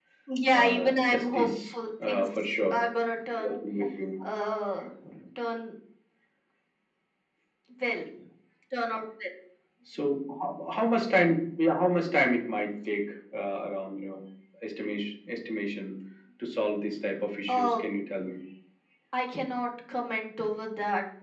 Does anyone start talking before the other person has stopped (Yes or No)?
Yes